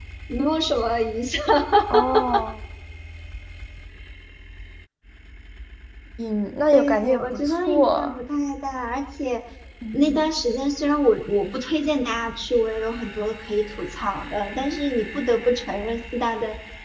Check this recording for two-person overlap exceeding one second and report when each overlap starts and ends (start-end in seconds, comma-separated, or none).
6.7-8.2